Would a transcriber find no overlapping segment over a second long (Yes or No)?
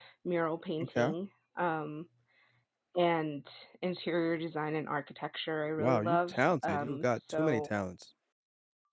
No